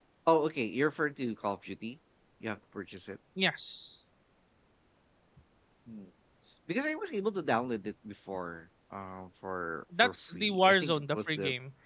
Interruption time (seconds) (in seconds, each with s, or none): 9.9 s